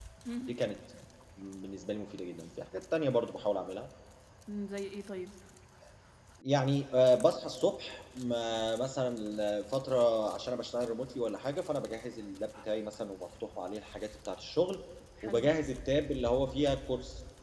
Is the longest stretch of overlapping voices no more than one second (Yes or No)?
Yes